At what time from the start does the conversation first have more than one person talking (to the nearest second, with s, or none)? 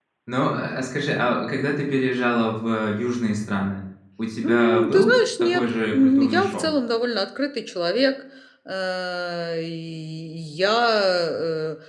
4 s